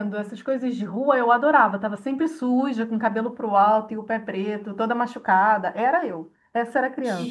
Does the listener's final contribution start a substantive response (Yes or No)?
Yes